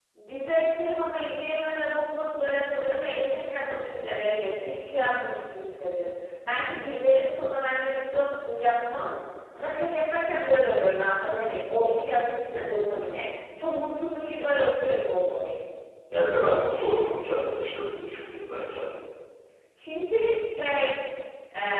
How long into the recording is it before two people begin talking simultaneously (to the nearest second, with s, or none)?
none